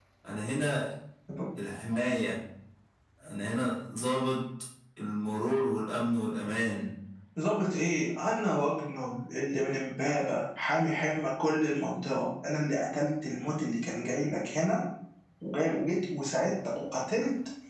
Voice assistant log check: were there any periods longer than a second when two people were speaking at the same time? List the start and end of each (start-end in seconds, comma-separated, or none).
none